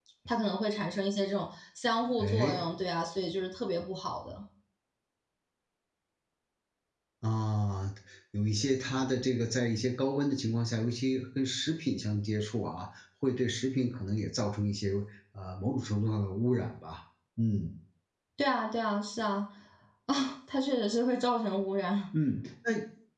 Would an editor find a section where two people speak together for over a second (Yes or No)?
No